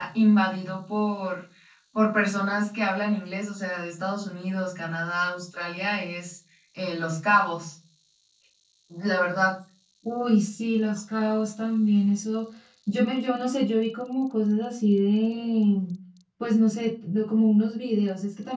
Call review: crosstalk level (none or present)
none